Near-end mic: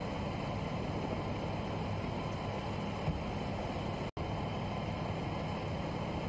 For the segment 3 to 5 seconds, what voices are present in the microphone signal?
neither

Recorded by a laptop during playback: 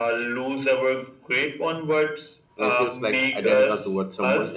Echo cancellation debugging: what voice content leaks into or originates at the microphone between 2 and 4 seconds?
both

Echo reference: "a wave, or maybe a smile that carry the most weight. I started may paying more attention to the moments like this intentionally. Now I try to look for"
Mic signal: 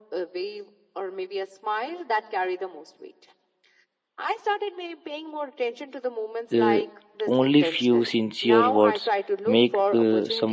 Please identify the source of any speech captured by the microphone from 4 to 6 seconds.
echo only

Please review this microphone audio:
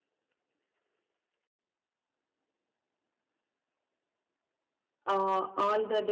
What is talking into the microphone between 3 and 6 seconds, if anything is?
user only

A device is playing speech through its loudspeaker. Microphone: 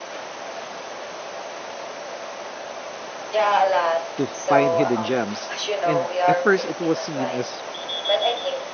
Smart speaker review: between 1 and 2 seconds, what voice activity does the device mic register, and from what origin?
neither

